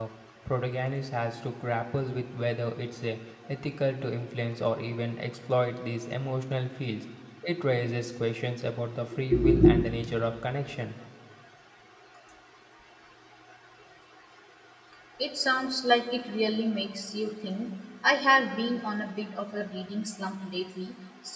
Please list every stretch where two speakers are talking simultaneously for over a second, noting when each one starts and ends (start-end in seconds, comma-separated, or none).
none